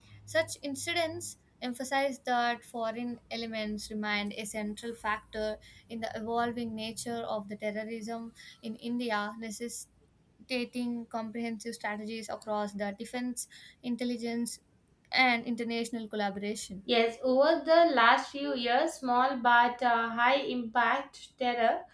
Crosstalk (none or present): none